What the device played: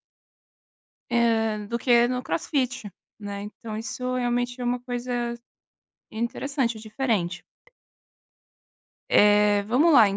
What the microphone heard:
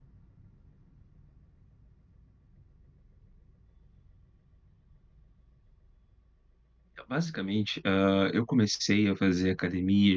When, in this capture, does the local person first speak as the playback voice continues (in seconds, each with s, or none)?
6.9 s